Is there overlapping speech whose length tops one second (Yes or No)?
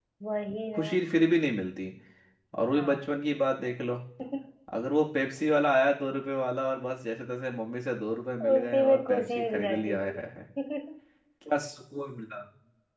Yes